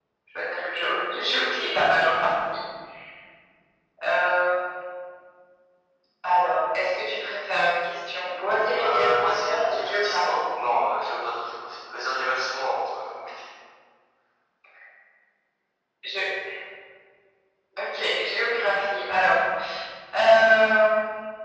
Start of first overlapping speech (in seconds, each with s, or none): 8.7 s